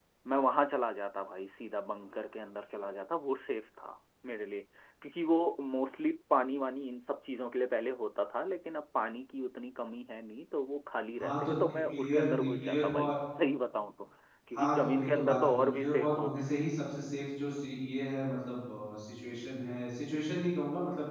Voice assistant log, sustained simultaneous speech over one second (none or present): present